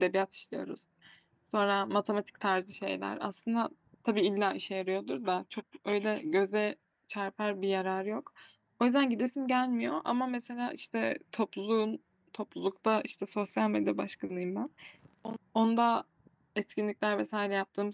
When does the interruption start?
none

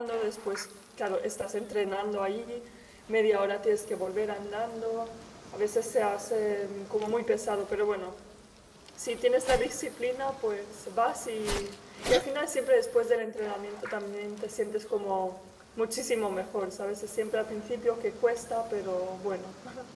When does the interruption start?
none

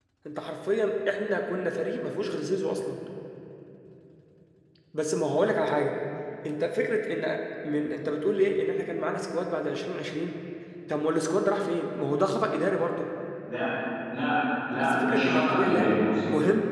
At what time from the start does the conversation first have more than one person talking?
14.8 s

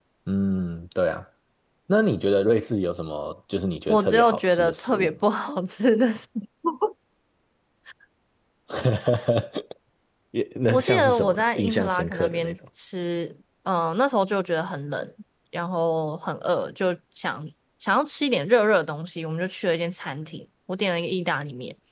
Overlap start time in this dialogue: 3.9 s

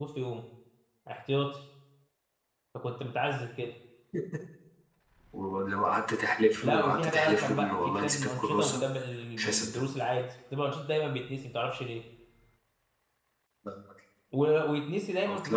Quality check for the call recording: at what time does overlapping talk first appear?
6.6 s

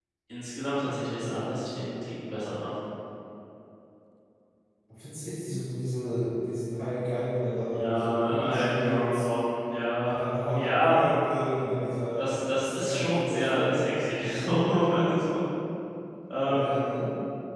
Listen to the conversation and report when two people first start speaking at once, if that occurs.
7.7 s

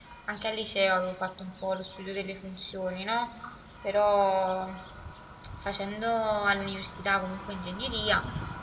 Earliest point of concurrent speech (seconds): none

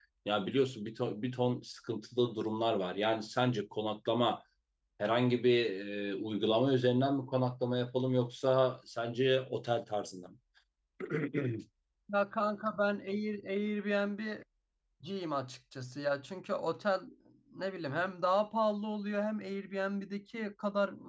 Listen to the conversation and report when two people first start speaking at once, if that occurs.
none

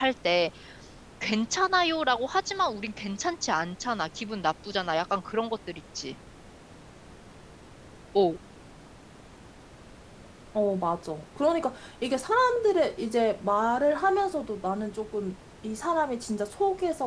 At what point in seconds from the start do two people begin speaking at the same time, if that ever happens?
none

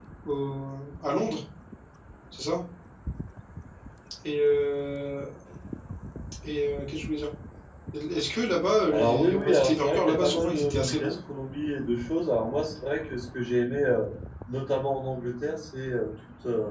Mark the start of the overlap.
8.9 s

